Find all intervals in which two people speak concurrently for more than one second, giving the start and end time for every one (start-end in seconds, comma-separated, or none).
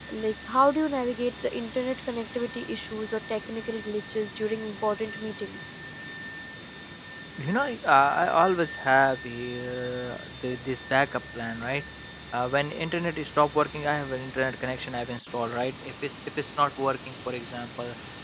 none